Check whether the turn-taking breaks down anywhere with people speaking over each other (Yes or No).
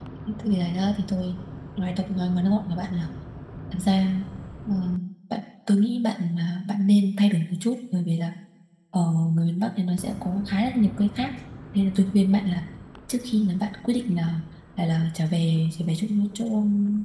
No